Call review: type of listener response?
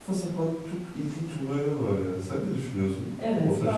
taking over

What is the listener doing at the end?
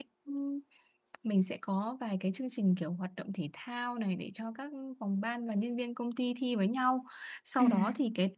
listening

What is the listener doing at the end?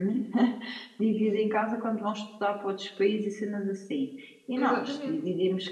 listening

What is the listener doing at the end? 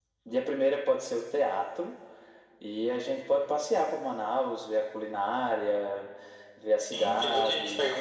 taking over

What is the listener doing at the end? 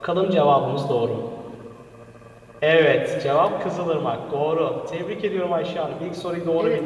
taking over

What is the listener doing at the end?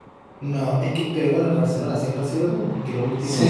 listening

